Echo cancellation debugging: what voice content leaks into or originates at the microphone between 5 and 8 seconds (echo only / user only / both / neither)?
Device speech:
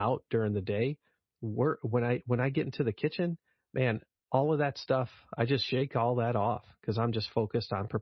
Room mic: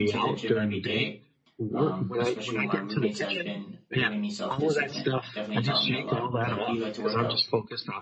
both